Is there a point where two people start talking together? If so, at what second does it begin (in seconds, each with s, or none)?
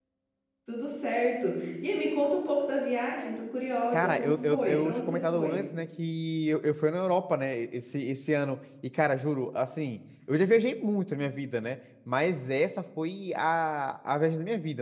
3.9 s